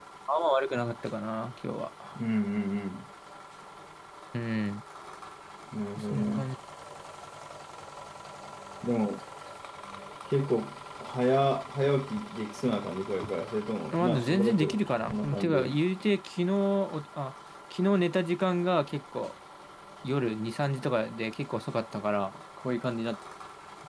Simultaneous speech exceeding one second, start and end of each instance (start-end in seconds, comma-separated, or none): 13.9-15.8